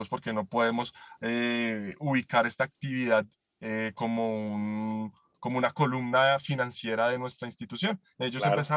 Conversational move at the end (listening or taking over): listening